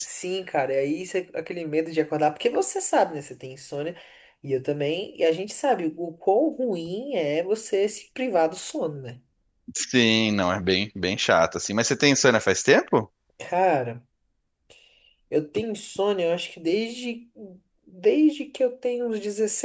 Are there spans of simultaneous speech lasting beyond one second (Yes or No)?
No